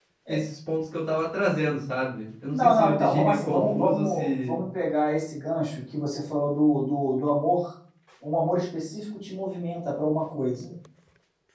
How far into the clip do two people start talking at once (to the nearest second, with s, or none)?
3 s